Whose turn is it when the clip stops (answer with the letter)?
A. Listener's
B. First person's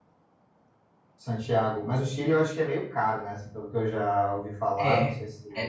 A